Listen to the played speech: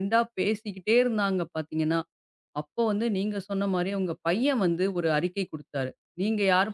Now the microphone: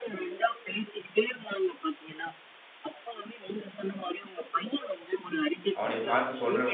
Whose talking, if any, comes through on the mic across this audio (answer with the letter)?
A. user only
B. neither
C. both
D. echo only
C